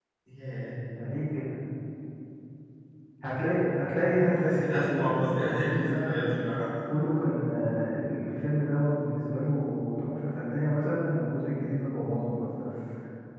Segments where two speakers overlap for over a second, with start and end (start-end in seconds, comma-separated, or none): 4.4-6.3